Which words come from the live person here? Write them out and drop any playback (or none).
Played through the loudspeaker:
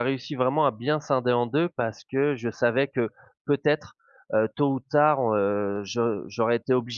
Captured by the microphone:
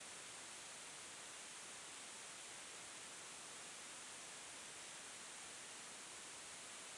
none